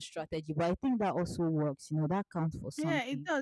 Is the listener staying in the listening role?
No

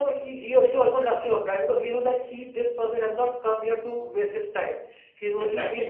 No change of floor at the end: Yes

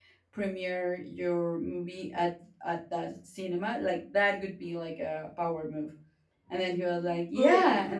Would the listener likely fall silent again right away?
Yes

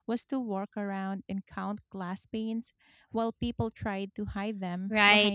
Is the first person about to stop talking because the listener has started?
Yes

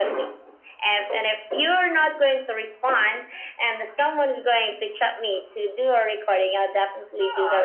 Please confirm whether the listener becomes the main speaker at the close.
Yes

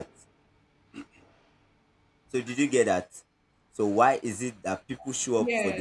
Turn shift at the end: No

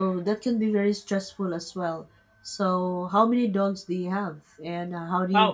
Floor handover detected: No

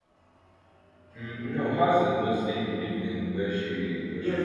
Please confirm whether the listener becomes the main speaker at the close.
Yes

